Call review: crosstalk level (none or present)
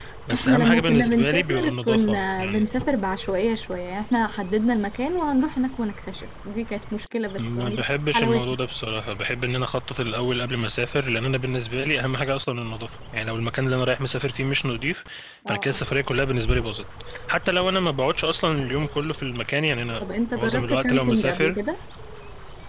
present